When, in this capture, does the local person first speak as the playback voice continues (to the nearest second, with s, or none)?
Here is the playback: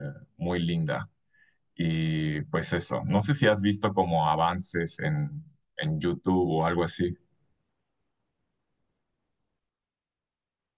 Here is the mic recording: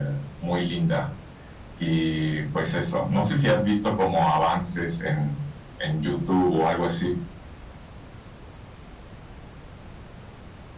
none